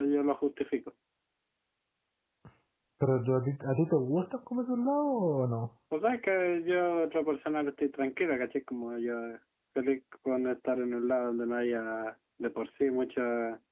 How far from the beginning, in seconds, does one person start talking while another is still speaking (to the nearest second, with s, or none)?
none